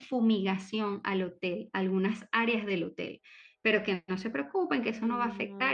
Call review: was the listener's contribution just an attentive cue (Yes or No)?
Yes